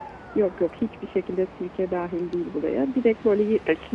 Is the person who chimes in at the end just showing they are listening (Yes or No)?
Yes